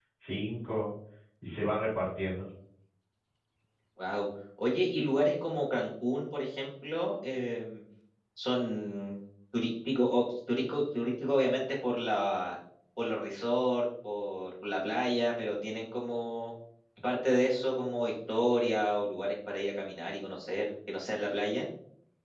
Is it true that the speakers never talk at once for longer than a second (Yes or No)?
Yes